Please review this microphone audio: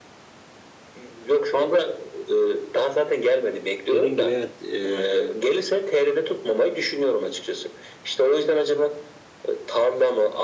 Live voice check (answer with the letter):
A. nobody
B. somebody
B